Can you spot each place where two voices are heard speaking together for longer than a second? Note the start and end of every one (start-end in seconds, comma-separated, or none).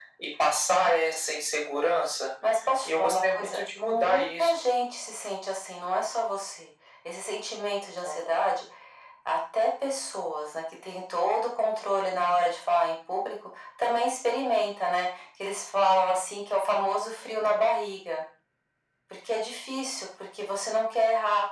2.8-4.5